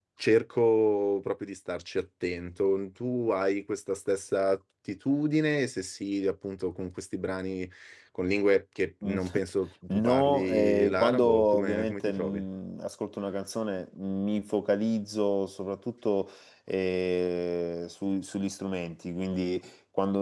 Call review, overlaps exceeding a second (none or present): present